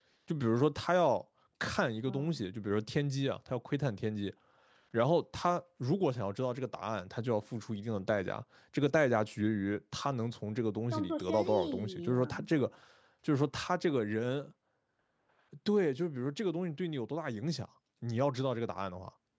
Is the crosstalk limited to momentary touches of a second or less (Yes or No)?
No